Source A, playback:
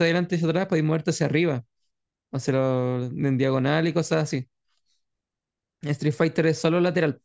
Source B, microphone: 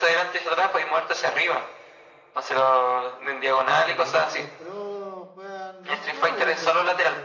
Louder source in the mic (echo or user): echo